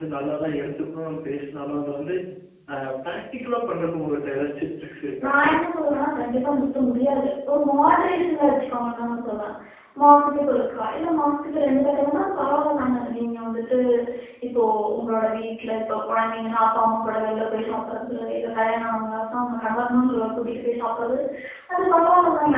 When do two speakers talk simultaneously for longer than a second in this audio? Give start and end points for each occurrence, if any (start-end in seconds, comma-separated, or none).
none